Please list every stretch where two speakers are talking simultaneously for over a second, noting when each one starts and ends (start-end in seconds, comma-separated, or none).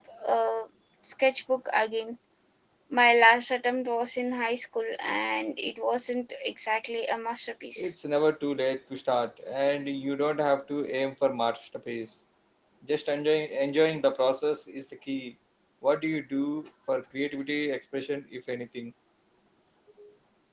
none